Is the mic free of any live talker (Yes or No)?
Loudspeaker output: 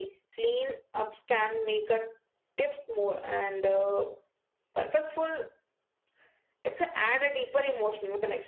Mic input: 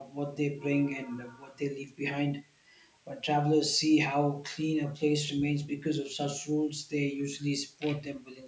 No